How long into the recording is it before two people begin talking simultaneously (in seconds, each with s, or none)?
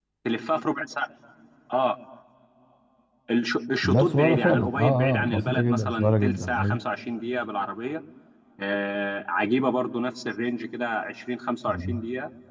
3.8 s